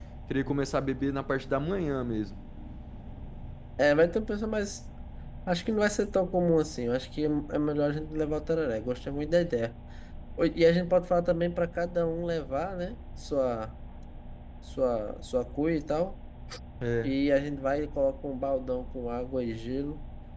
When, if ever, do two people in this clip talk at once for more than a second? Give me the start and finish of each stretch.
none

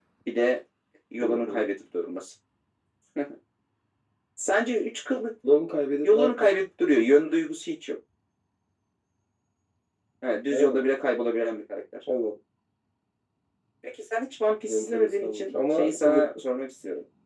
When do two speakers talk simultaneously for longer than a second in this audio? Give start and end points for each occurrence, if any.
14.6-16.2

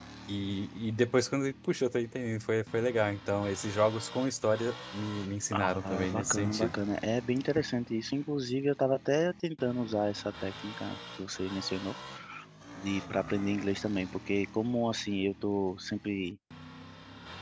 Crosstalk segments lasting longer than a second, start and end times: 5.5-6.8

